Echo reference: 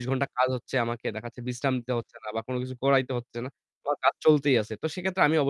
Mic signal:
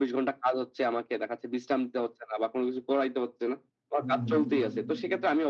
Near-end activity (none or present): present